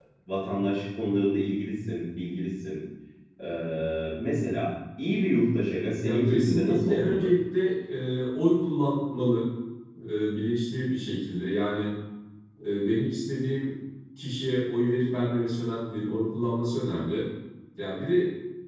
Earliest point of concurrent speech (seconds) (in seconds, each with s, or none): 6.0 s